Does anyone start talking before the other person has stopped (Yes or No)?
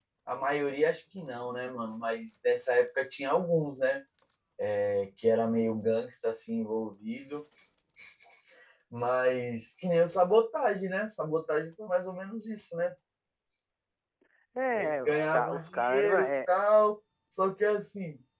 Yes